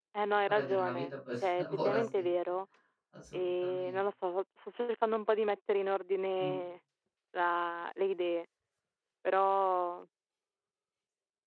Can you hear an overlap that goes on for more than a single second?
Yes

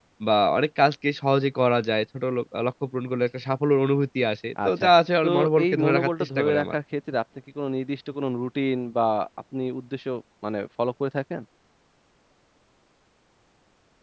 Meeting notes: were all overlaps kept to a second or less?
No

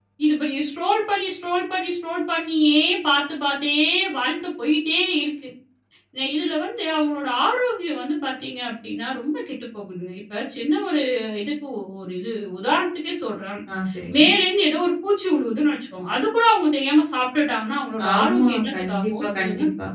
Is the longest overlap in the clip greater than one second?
Yes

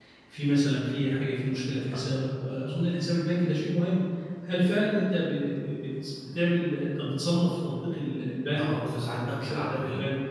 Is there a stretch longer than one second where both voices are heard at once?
Yes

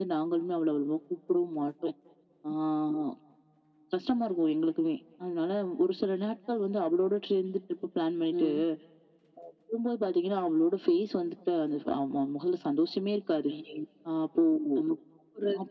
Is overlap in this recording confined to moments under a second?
Yes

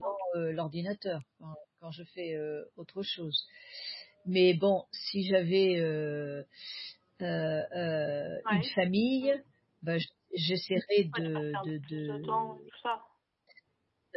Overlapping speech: Yes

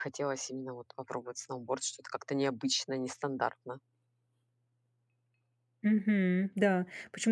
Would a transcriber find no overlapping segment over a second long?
Yes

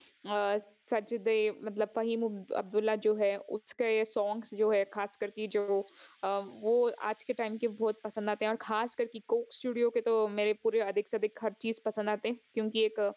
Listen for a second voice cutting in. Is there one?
No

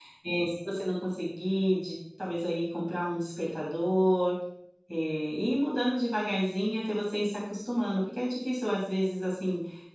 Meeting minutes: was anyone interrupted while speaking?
No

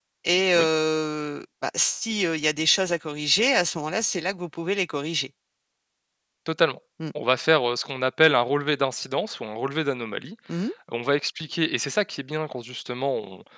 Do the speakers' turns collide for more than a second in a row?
No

